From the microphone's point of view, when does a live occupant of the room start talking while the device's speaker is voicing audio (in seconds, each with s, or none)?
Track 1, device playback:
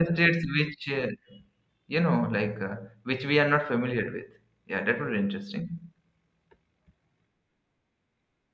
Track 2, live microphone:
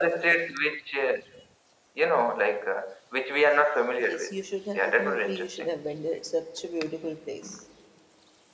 4.0 s